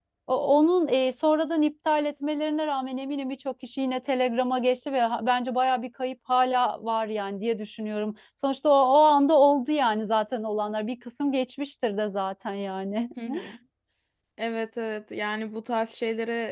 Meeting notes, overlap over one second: none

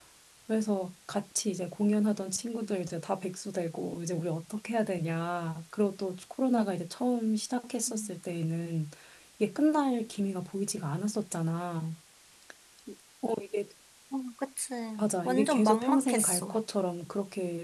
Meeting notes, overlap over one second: present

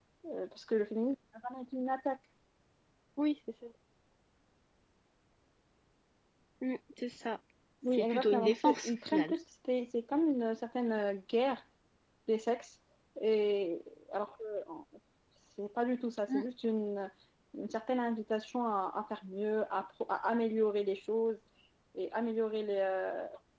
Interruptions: present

